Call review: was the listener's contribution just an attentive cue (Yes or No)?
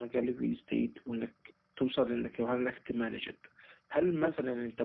Yes